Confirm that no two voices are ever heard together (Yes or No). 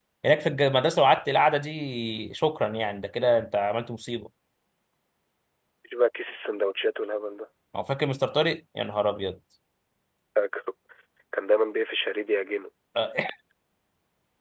Yes